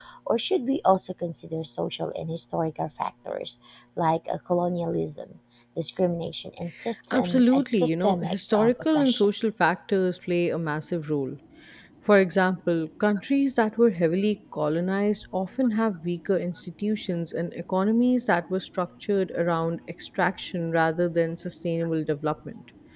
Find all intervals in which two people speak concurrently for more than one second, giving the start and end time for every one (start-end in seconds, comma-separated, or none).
7.1-9.2